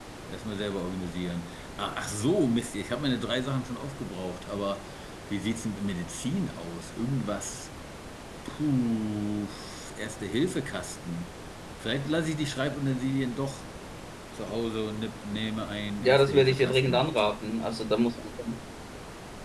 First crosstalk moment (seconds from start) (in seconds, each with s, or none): 16.0 s